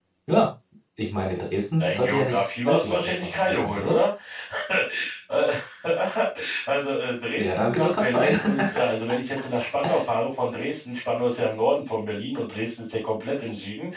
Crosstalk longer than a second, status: present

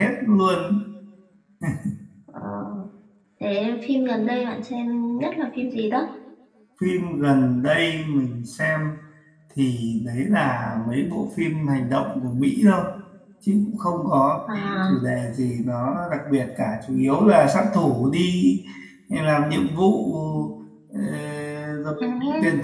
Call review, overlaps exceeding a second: none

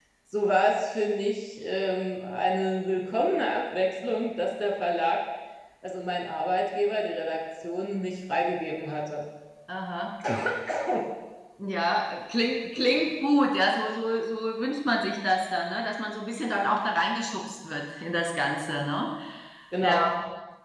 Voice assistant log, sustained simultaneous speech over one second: none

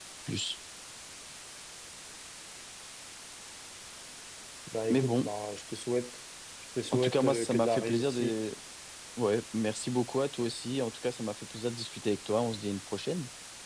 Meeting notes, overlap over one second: present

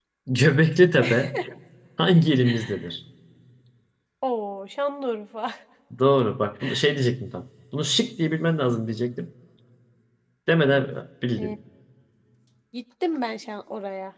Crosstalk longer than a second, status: none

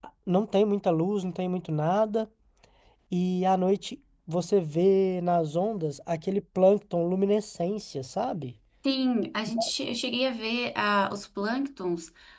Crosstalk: none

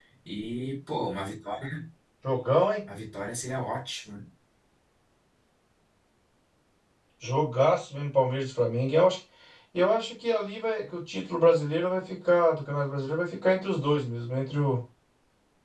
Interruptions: none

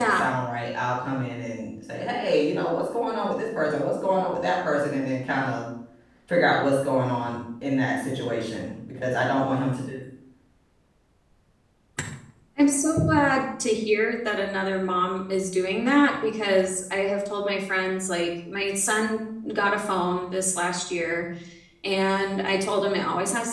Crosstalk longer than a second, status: none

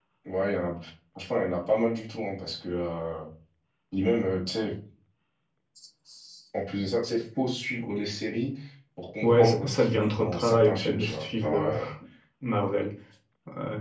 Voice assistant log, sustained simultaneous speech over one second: present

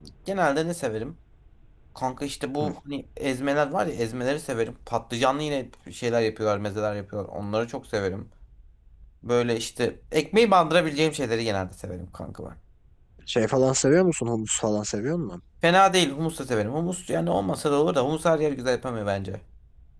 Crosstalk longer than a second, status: none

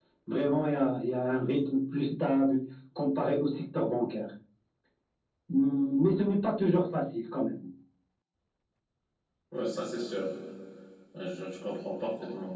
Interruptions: none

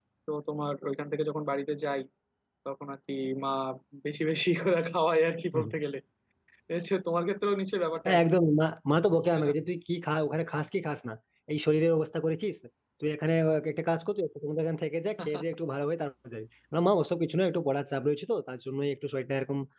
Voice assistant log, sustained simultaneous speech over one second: none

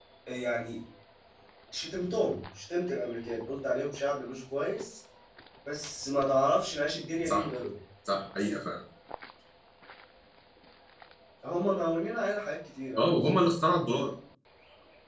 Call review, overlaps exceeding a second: none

